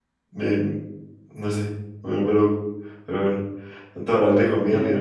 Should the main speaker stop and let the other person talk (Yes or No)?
No